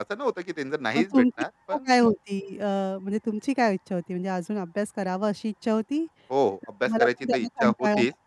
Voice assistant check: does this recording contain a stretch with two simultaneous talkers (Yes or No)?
Yes